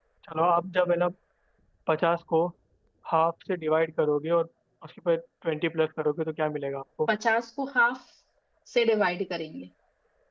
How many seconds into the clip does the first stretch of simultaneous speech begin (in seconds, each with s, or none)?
none